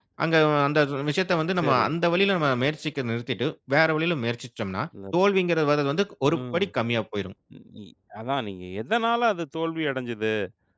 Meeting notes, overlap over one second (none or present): none